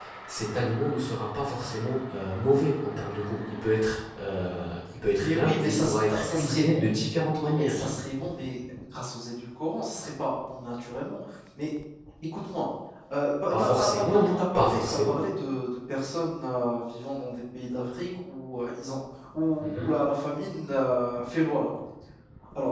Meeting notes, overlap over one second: present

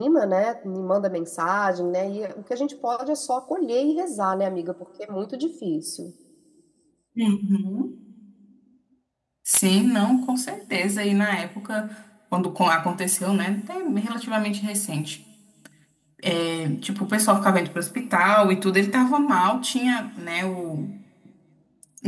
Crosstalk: none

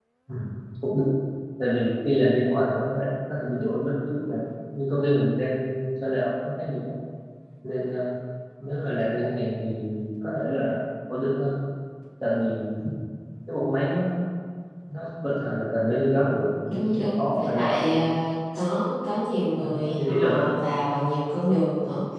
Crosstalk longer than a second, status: present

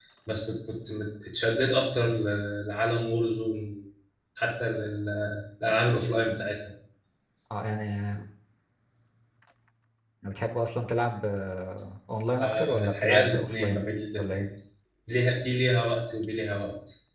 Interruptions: present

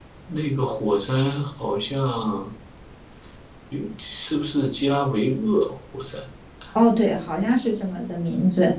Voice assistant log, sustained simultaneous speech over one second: none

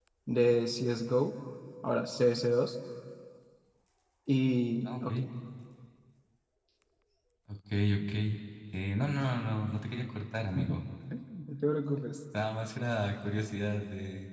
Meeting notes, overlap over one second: none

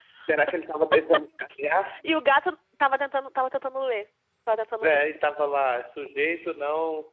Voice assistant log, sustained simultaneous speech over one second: none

